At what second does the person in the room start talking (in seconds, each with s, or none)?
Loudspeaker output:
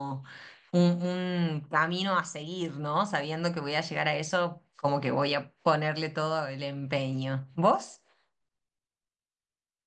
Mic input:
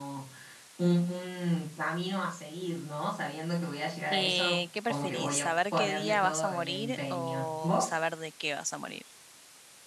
4.1 s